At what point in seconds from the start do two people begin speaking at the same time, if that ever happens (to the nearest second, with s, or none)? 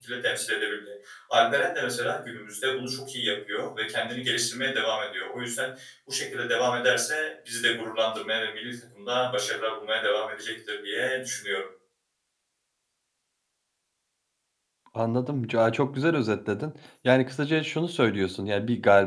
none